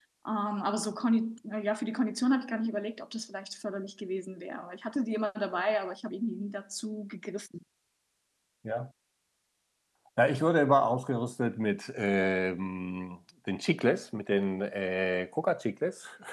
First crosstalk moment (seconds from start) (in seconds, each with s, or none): none